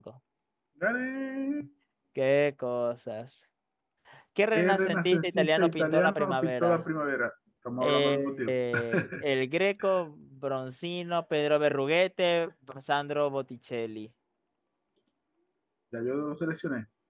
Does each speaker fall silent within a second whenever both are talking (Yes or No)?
No